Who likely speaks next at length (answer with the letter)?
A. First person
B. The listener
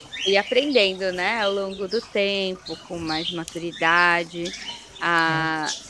A